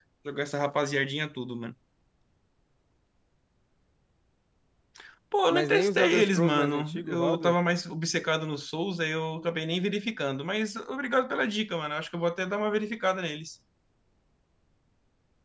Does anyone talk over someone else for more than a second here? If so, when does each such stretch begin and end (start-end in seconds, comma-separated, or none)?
5.5-7.6